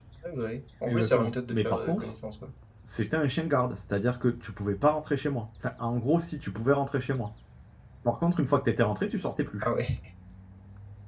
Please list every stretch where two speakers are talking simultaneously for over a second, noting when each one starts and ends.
0.9-2.1

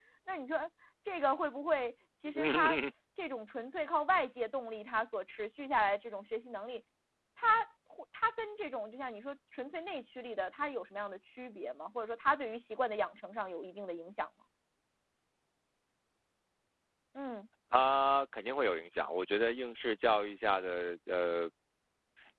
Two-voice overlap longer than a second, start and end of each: none

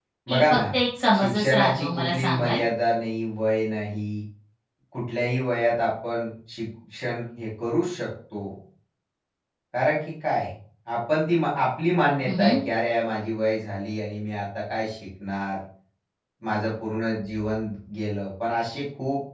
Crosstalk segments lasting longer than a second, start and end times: 1.2-2.6

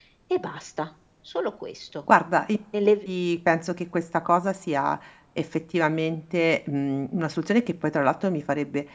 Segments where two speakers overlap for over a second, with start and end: none

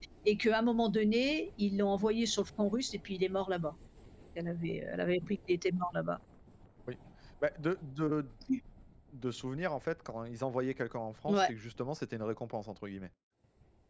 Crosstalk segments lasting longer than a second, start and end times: none

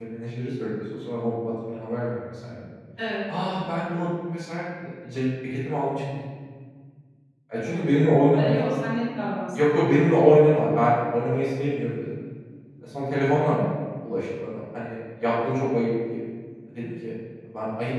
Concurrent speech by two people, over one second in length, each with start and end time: none

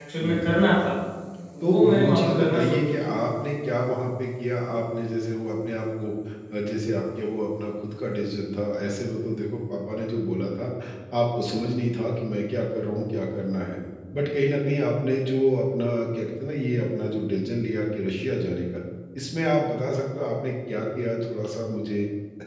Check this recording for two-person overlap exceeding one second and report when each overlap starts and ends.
1.6-2.9

